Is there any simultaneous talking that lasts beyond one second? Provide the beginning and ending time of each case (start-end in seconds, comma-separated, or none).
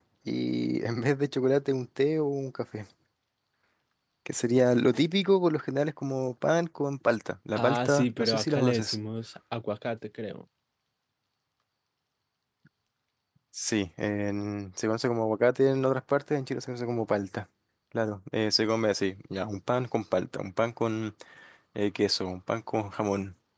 7.6-9.0